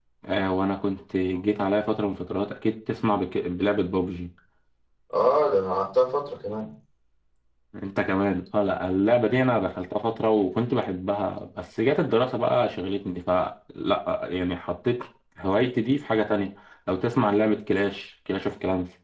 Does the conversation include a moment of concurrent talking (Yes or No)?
No